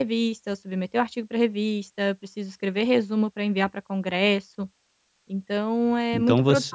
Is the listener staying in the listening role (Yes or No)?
No